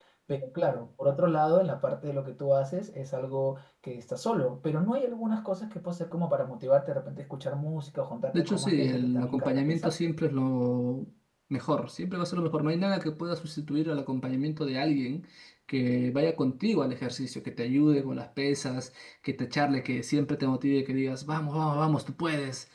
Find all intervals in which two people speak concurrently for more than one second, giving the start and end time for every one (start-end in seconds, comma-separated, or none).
8.3-9.9